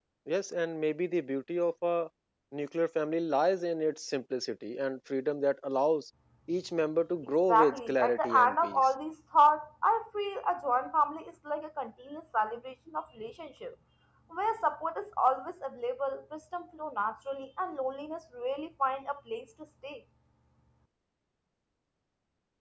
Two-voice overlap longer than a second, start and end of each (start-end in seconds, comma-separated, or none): 7.5-8.9